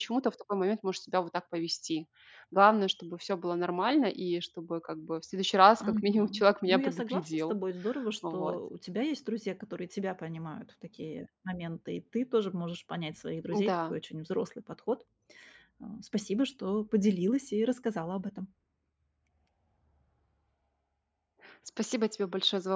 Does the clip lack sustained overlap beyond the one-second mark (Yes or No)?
No